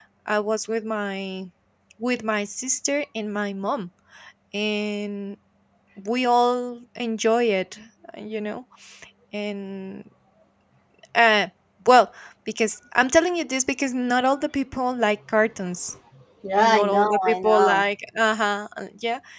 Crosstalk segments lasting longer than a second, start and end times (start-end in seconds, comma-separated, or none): 16.6-17.8